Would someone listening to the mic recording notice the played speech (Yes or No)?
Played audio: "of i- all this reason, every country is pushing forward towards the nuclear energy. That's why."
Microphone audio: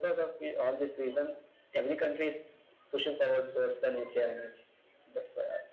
Yes